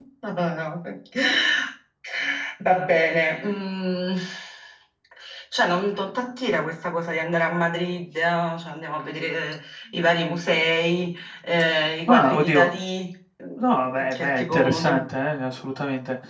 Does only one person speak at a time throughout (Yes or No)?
No